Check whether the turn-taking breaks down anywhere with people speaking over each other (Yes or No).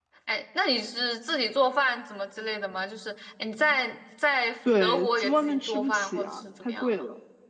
Yes